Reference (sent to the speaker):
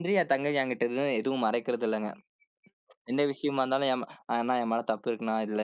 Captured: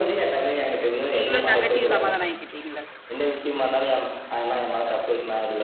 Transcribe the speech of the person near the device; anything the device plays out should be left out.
நீங்களும் தங்கச்சியும் சமாதானம் ஆயிக்கிட்டீங்கள்ல!

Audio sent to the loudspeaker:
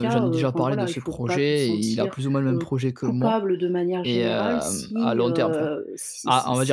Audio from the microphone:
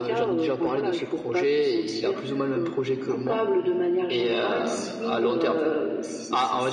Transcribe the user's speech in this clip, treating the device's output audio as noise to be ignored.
none

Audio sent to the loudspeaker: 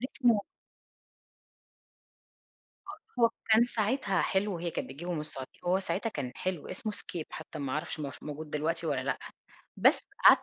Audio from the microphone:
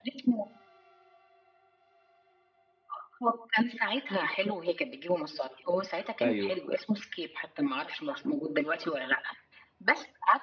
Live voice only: أيوه.

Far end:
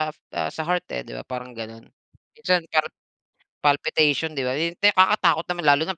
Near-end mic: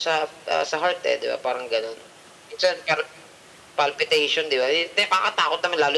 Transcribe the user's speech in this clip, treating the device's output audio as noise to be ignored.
none

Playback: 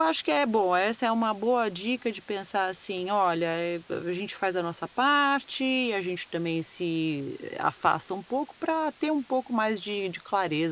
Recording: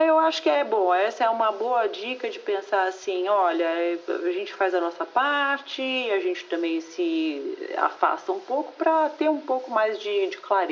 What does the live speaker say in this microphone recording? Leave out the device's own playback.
none

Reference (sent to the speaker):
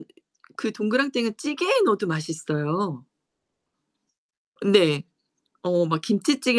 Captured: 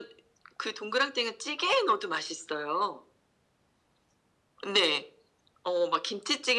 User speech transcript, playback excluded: none

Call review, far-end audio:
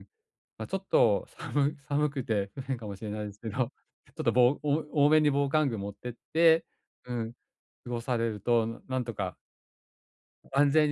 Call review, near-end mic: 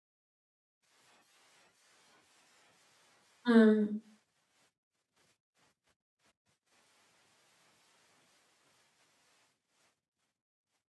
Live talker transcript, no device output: うーん。

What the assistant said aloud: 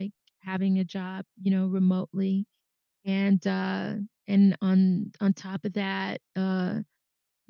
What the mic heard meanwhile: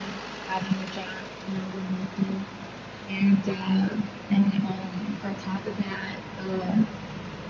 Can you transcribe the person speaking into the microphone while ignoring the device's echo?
none

